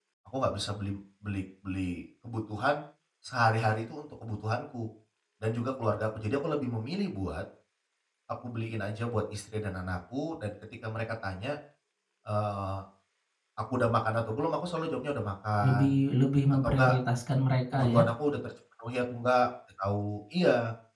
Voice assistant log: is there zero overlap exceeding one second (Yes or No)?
Yes